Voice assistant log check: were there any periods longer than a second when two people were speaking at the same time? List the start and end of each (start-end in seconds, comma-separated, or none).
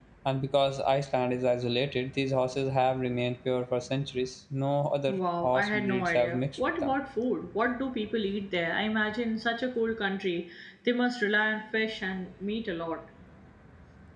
5.1-7.0